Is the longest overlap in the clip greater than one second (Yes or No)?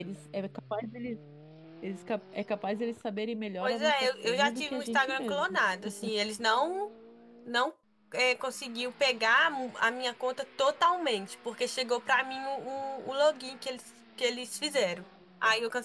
Yes